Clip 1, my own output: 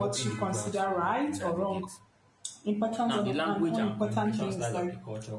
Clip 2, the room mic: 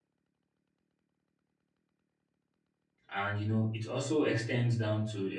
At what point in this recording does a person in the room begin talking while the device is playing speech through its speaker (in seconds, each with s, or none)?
3.1 s